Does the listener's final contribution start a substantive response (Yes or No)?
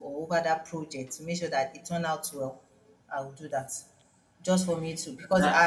No